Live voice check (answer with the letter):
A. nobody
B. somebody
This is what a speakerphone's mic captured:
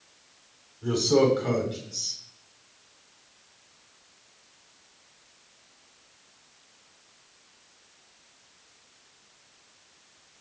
B